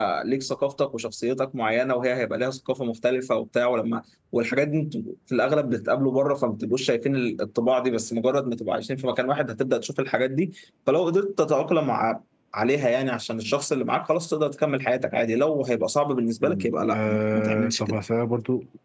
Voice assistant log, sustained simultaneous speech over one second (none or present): present